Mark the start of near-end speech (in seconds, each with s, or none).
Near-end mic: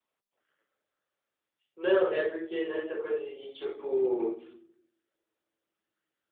1.7 s